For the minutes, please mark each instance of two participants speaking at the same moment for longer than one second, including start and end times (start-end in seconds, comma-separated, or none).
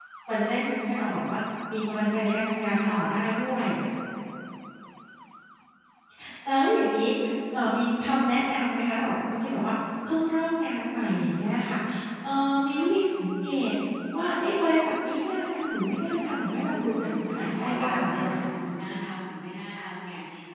16.7-18.3